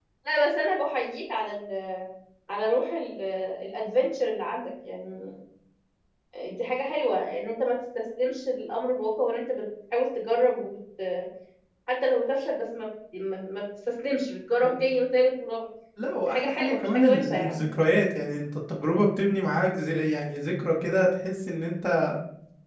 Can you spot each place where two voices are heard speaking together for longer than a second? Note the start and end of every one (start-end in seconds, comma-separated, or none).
16.2-17.7